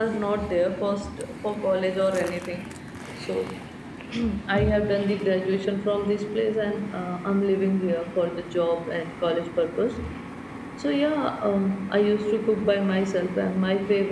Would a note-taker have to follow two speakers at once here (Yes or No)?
No